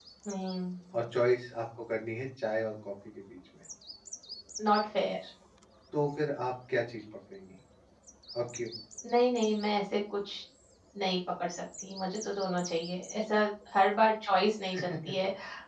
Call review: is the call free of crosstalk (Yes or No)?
Yes